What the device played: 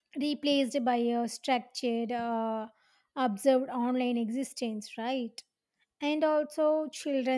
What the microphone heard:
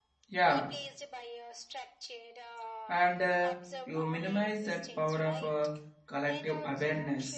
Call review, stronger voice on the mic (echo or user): user